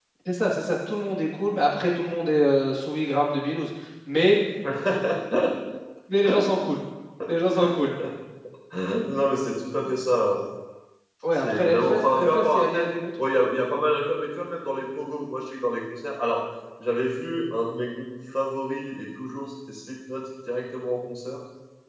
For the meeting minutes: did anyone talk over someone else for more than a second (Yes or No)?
Yes